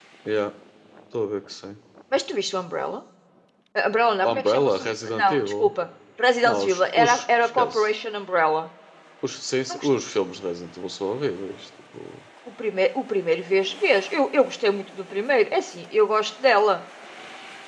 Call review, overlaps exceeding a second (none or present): present